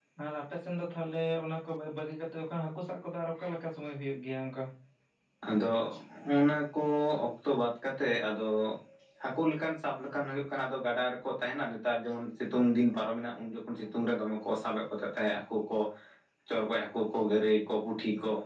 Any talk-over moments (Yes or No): No